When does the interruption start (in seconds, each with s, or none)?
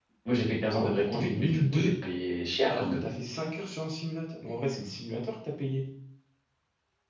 0.7 s